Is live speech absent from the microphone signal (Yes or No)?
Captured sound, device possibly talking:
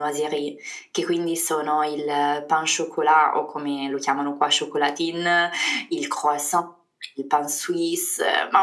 Yes